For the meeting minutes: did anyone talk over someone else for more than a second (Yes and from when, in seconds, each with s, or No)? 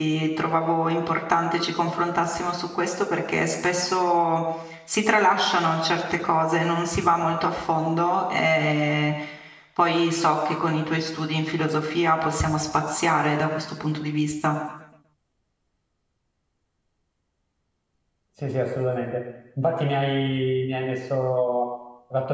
No